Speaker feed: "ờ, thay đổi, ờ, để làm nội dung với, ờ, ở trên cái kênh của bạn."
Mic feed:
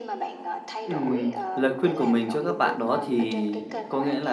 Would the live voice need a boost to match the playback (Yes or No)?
No